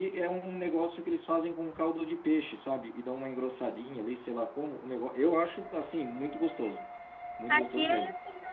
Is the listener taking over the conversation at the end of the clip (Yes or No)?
Yes